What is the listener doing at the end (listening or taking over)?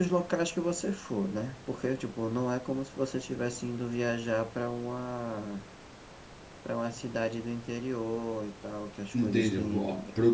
taking over